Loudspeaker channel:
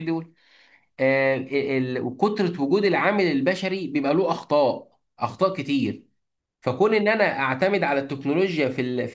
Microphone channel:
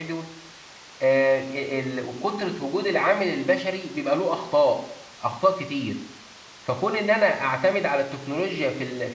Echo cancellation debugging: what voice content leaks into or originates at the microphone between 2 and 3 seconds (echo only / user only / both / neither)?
echo only